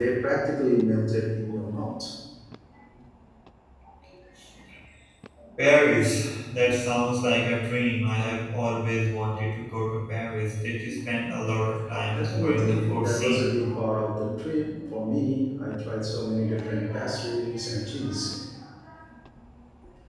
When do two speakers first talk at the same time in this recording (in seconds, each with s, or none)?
12.0 s